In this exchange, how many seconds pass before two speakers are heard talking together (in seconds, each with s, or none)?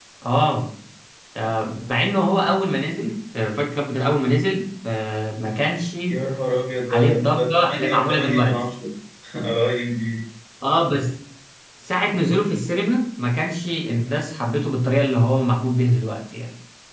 6.9 s